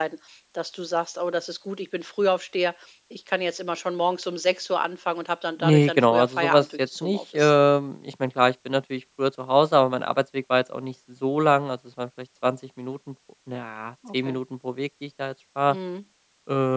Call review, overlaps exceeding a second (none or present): present